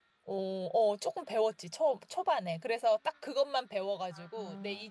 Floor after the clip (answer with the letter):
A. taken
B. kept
B